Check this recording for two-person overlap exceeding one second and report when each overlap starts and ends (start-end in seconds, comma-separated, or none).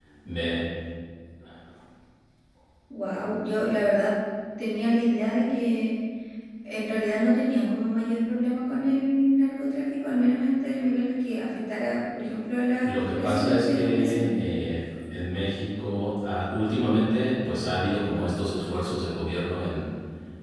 12.8-14.3